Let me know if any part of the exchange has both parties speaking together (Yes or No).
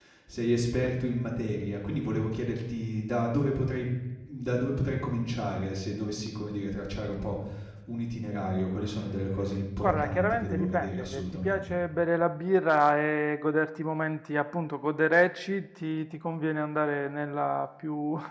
Yes